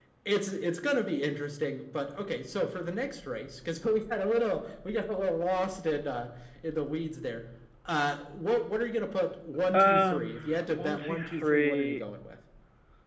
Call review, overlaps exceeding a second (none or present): present